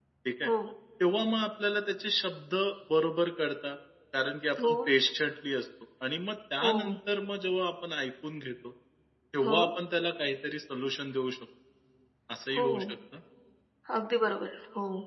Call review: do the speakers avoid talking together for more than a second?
Yes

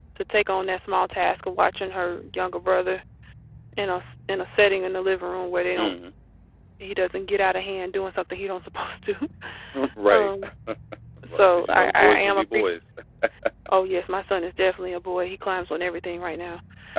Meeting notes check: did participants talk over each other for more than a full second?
Yes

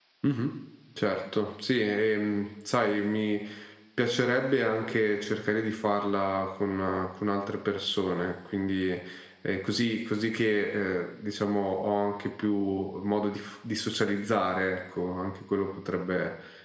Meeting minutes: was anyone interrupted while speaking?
No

